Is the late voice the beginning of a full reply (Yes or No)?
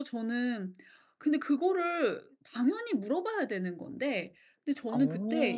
No